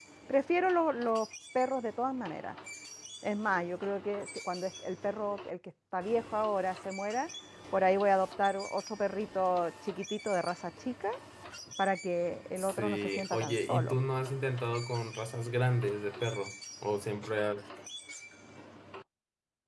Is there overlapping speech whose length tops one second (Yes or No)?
Yes